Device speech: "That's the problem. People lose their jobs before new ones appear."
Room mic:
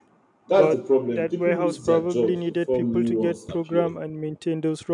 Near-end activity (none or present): present